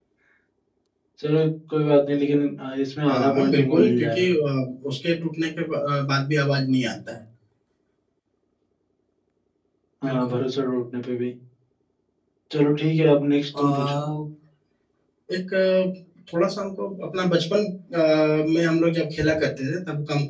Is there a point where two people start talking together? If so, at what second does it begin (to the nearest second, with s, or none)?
3 s